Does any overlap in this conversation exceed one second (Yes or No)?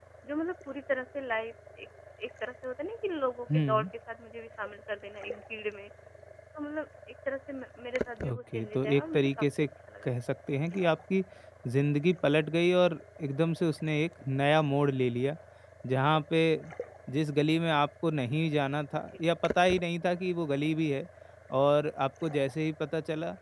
Yes